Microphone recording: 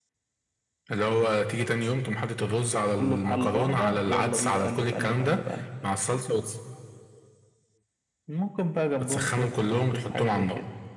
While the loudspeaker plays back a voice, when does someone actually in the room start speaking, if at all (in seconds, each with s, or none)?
none